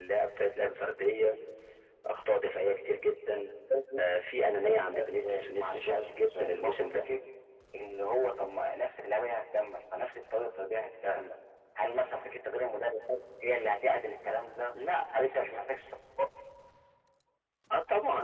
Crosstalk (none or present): present